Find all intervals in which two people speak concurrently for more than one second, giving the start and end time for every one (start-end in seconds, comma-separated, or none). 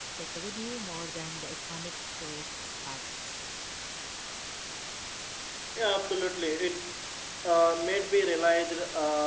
none